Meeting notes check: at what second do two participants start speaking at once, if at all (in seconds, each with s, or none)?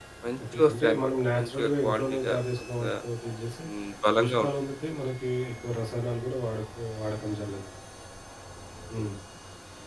0.5 s